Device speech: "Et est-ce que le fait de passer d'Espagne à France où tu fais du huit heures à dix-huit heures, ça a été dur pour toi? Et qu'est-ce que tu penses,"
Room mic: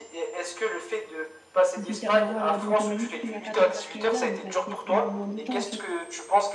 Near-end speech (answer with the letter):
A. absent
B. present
B